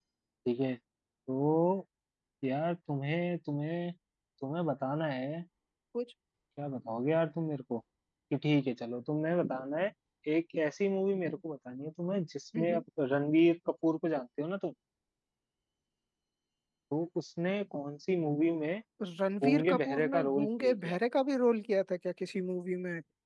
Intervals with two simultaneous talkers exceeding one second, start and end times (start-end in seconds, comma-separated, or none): 19.4-21.0